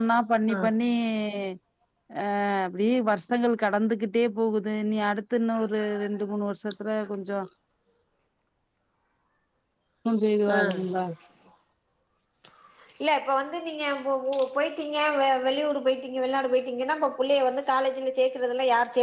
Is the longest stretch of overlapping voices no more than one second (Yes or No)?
Yes